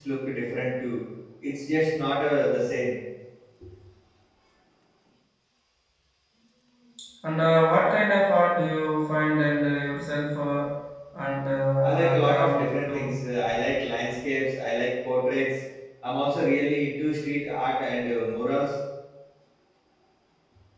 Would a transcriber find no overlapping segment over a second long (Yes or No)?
No